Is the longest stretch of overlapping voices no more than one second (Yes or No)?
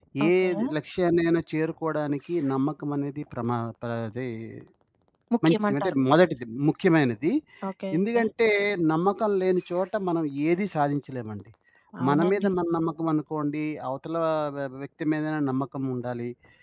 Yes